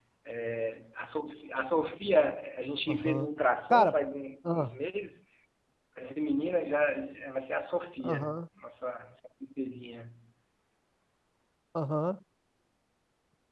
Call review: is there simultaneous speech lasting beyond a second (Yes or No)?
No